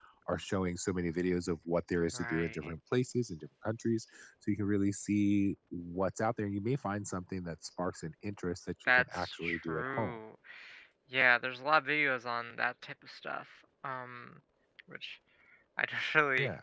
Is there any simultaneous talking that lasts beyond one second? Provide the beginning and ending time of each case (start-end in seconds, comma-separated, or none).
8.9-10.2